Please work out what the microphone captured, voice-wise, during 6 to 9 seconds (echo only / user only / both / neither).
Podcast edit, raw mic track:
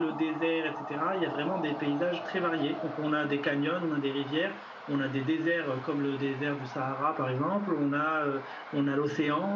echo only